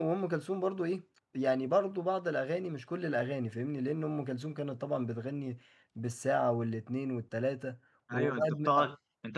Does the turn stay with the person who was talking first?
No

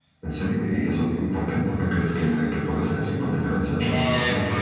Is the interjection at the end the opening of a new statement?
Yes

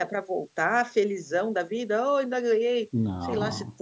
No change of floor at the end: Yes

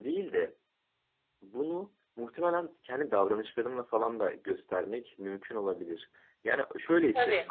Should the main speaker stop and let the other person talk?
No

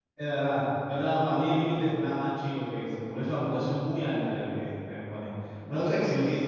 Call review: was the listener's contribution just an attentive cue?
Yes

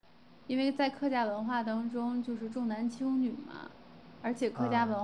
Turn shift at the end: No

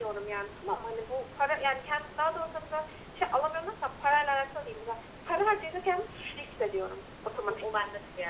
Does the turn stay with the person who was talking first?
No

